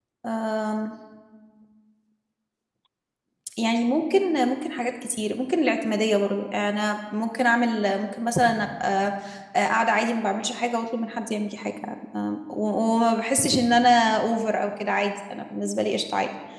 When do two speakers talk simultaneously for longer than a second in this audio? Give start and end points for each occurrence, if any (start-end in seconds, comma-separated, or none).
none